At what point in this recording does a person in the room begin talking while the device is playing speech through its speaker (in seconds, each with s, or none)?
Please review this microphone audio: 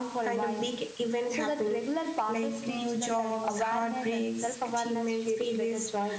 none